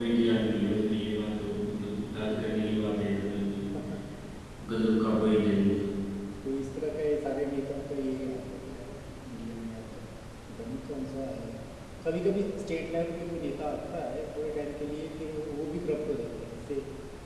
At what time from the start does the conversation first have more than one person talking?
none

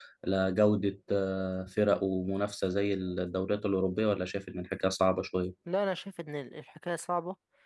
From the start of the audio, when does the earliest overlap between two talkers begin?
none

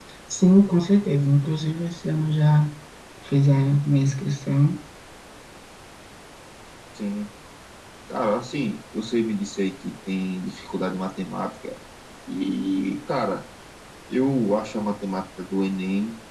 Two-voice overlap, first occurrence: none

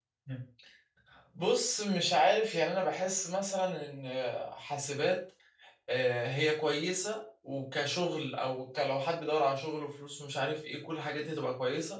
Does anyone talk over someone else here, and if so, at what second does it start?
none

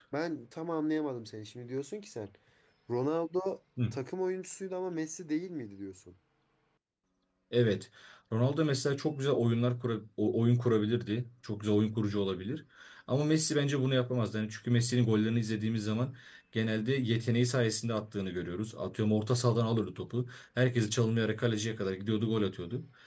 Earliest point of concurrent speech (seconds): none

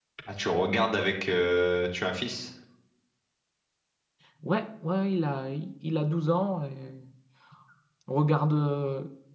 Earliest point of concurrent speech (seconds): none

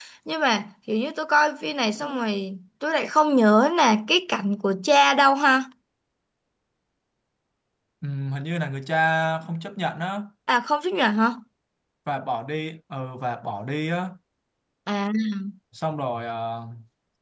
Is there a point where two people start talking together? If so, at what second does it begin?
none

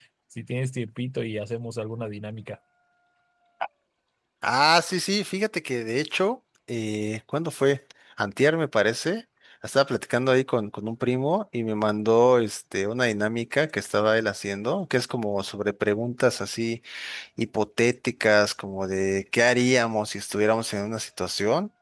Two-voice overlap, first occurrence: none

